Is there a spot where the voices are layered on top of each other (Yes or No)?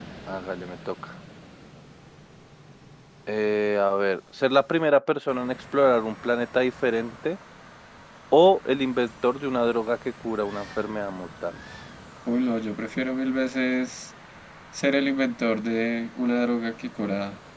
No